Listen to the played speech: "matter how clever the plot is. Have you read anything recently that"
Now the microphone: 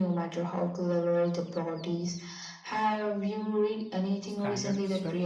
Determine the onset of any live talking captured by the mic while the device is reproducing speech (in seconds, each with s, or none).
4.2 s